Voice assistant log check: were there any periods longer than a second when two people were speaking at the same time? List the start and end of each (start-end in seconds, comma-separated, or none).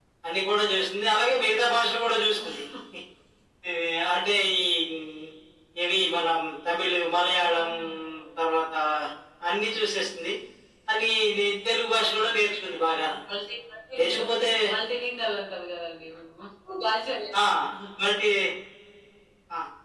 none